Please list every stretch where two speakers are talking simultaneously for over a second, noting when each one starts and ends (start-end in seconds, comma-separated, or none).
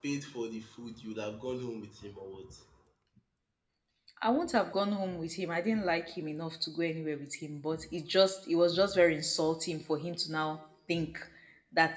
none